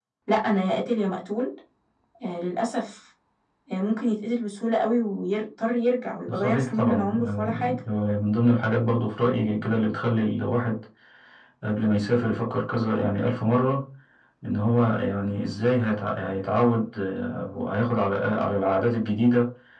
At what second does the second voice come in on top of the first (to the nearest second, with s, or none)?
6 s